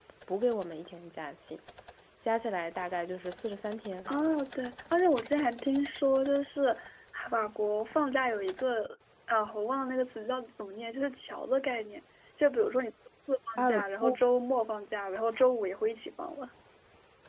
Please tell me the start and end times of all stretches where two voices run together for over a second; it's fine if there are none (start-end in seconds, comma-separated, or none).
none